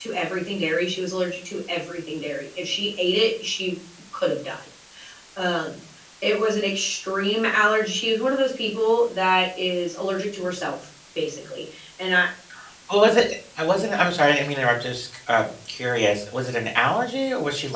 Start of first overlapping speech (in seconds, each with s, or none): none